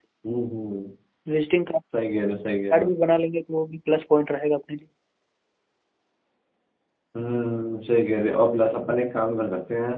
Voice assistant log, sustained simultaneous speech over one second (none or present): none